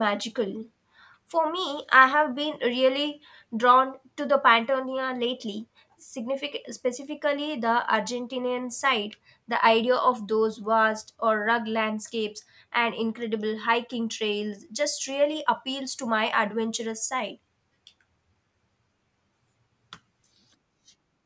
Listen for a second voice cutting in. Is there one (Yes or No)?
No